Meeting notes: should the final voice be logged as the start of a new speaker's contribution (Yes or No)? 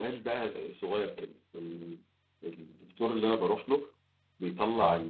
No